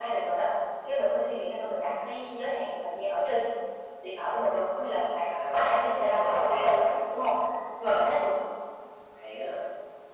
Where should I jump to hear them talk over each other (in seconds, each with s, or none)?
5.3 s